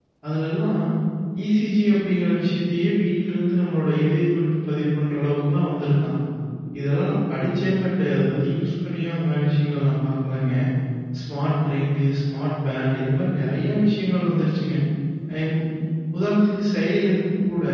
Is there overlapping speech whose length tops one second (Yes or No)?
No